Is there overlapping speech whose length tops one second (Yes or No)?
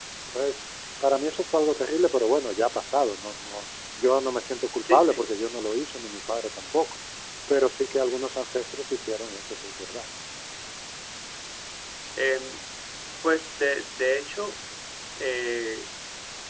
No